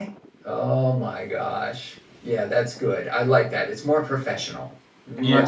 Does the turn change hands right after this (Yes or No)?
Yes